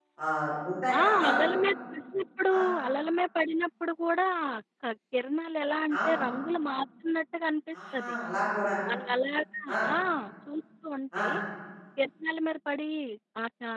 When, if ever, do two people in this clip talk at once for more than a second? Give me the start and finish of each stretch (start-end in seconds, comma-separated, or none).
none